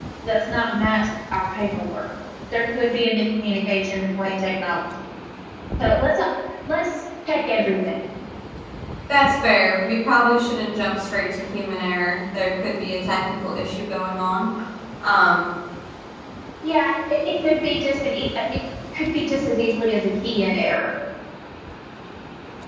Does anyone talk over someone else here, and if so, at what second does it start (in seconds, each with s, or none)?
none